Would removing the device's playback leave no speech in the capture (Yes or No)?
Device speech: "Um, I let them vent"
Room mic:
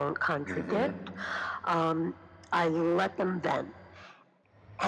No